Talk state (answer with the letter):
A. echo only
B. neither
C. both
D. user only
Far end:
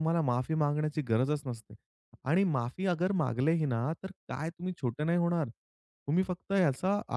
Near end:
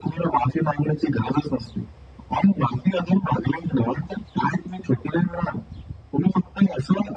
A